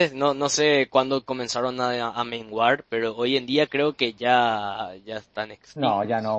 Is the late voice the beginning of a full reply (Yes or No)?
Yes